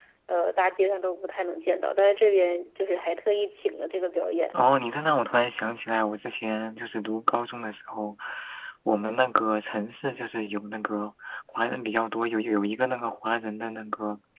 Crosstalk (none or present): none